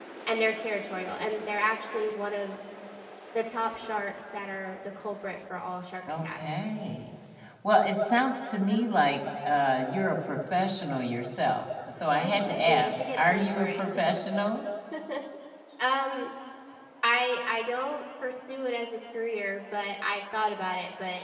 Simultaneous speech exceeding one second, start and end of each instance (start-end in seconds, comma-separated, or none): 12.2-13.8